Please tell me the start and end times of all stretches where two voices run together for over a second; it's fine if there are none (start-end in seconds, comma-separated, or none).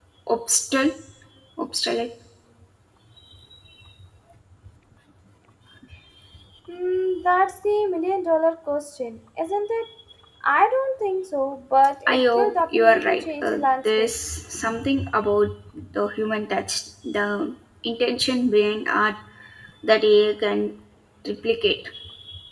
12.1-14.1